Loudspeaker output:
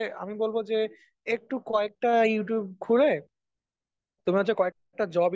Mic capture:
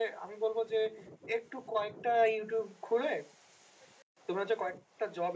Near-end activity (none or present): none